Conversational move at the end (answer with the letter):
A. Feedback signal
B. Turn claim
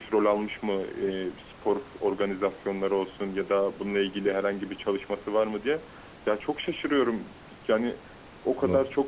A